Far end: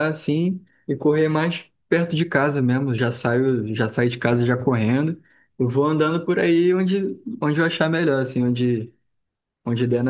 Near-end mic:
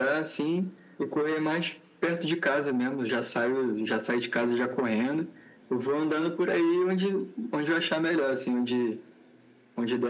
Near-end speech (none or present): none